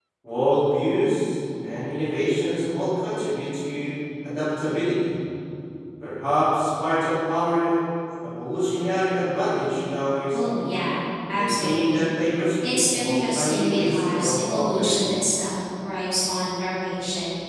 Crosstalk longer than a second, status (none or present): present